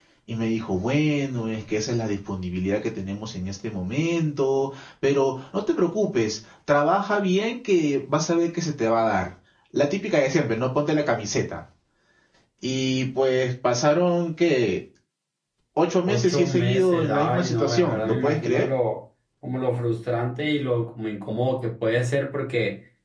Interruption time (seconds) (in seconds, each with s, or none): 16.1 s